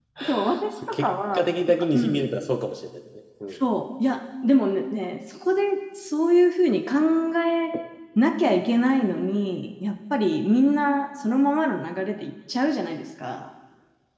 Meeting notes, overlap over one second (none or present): present